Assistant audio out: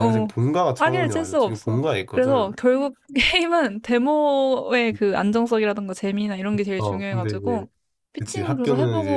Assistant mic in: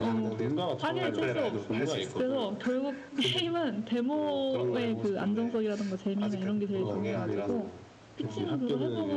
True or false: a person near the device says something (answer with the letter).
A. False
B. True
B